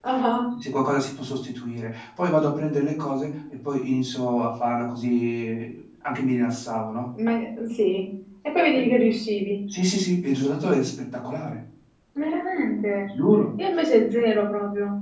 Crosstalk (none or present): none